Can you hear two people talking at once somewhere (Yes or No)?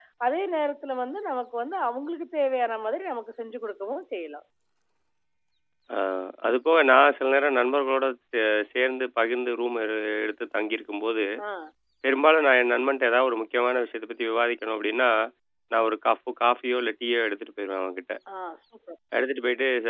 No